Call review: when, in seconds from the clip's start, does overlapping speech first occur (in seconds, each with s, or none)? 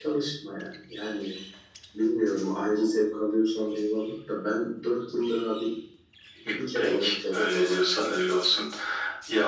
6.8 s